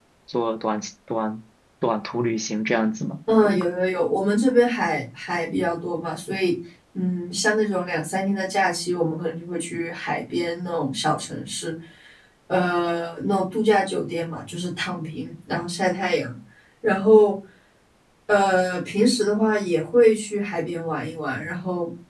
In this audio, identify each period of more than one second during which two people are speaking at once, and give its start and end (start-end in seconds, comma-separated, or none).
none